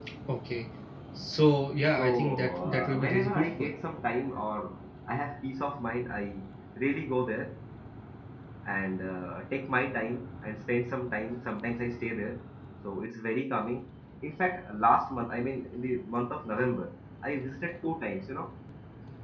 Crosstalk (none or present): present